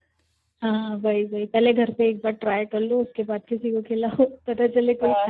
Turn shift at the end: Yes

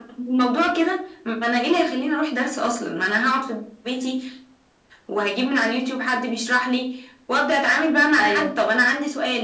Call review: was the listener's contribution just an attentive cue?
Yes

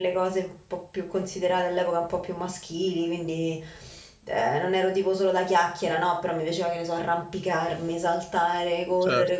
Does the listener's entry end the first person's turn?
No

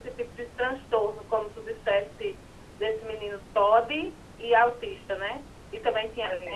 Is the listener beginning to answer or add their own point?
No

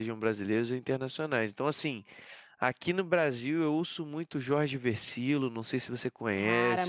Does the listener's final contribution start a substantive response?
Yes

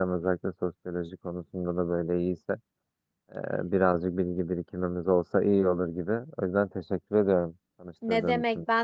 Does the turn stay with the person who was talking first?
No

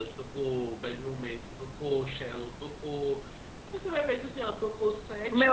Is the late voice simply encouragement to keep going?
No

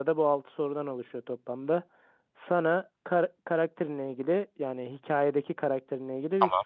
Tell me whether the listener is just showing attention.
Yes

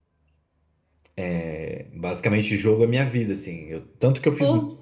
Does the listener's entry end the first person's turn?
No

